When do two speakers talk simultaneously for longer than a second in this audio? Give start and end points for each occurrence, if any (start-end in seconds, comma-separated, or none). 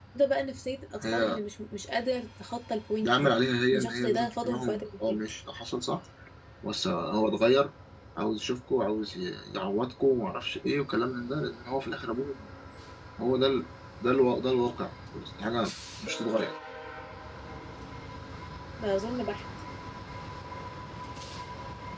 3.7-5.2